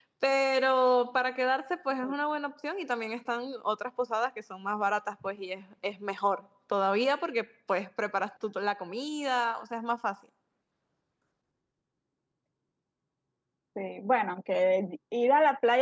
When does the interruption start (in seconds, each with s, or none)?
none